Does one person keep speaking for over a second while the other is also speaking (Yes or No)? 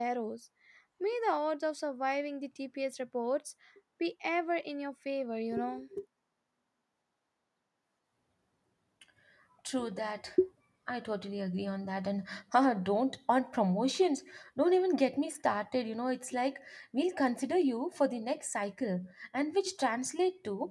No